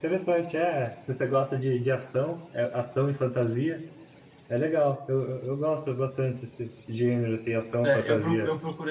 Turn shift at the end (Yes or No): Yes